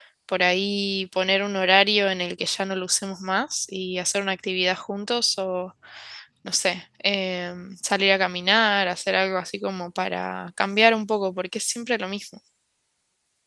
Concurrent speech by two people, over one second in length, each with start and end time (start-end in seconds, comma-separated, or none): none